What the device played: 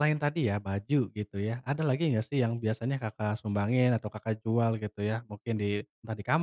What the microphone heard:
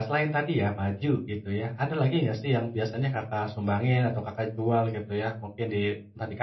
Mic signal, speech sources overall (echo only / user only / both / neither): echo only